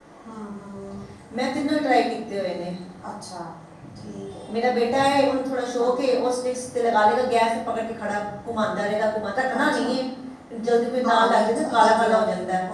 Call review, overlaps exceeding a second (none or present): present